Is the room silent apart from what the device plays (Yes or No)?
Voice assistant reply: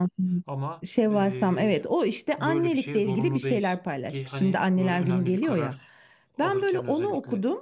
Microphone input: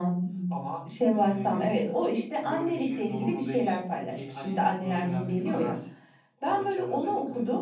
Yes